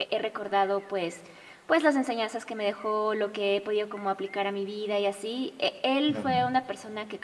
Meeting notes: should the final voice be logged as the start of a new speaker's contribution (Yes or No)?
No